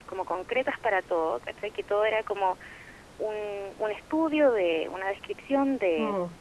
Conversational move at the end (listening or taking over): listening